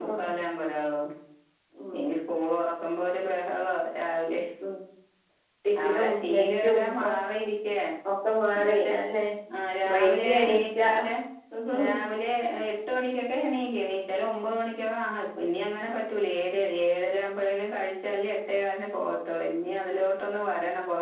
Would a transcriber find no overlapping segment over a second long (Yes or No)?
No